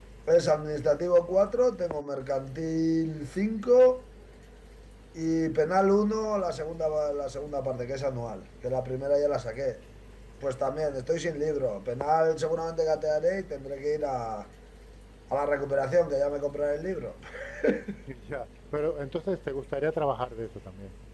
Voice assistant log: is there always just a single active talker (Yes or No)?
Yes